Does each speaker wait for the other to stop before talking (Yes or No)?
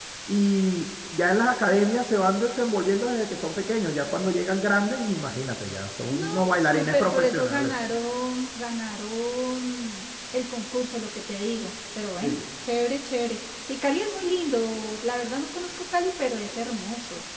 No